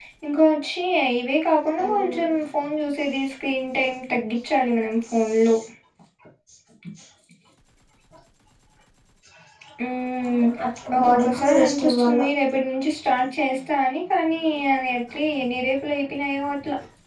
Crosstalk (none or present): present